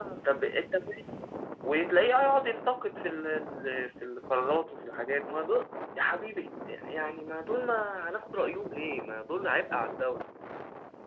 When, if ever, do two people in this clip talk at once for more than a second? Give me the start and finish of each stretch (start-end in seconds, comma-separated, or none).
none